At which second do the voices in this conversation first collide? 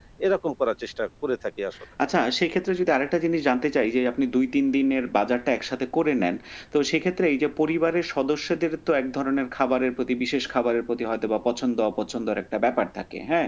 none

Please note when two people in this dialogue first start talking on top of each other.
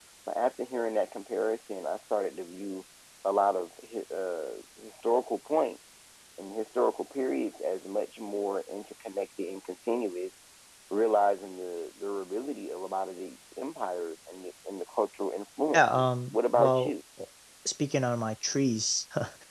15.7 s

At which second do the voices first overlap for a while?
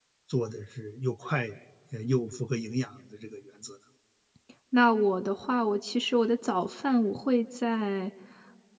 none

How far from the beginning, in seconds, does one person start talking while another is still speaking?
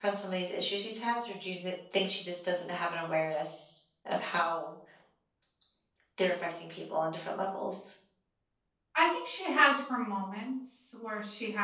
none

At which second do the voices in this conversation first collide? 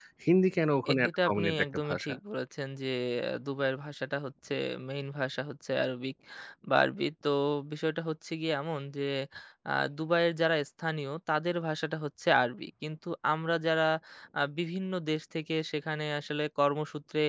0.9 s

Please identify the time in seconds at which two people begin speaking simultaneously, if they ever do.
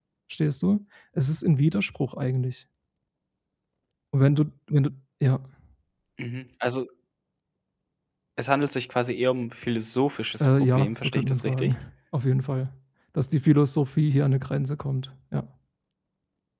10.4 s

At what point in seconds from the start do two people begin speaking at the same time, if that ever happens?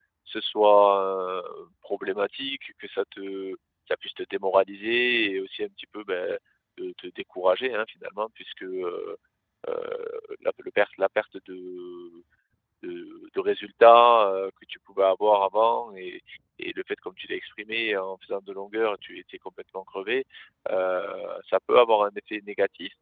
none

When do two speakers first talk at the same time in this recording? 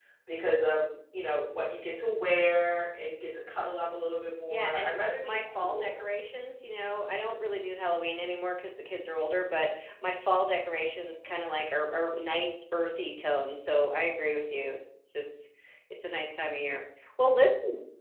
4.5 s

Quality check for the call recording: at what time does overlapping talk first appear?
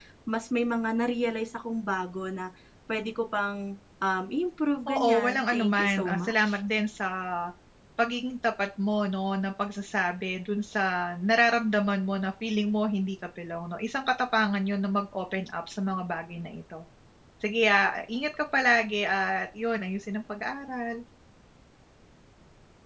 4.9 s

